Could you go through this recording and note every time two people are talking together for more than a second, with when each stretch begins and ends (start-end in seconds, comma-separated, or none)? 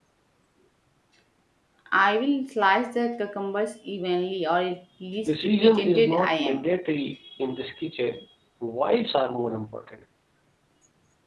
5.3-6.6